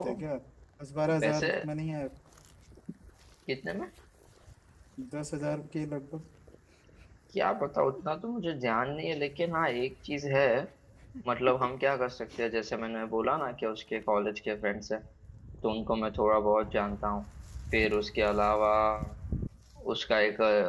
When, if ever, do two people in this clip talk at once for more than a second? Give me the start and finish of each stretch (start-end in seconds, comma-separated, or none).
none